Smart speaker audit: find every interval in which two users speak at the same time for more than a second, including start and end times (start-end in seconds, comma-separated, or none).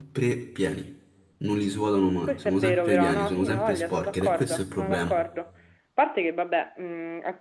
2.2-5.2